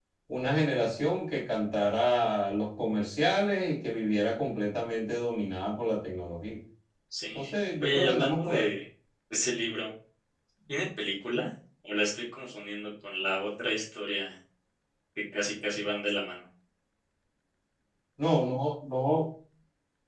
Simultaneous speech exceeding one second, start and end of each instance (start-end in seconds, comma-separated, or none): 7.3-8.7